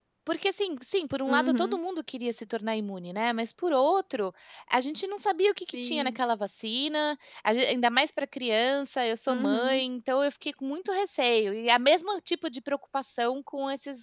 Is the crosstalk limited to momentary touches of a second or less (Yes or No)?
Yes